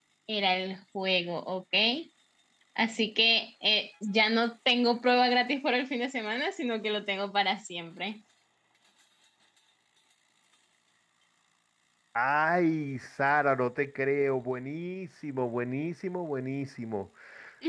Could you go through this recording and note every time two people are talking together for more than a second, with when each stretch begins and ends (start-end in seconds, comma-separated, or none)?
none